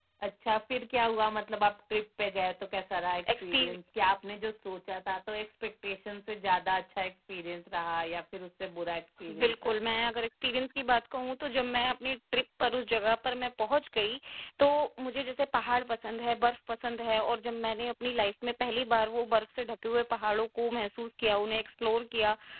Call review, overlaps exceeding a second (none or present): none